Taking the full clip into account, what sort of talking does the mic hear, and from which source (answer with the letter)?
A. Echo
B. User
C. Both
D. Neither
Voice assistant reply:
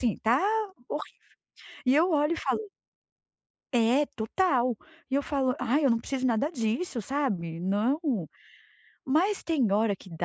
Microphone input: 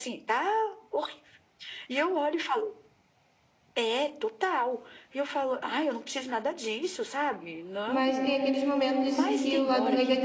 C